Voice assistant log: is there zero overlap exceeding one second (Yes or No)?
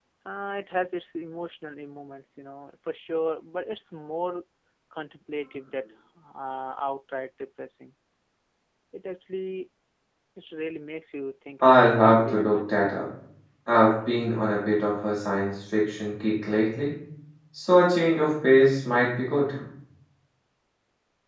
No